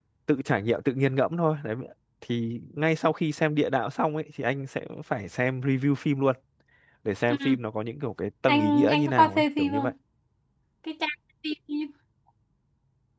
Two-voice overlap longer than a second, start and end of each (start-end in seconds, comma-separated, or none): 8.5-9.9